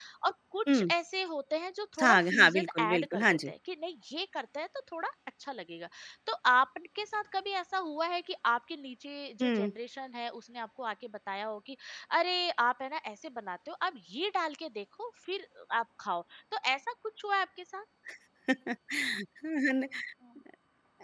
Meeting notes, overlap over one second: present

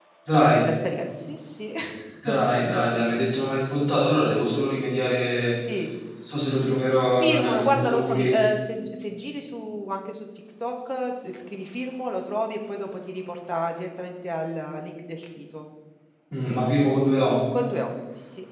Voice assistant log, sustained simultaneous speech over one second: present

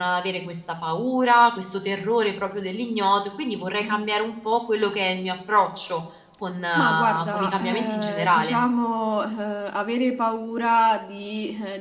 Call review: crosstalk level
present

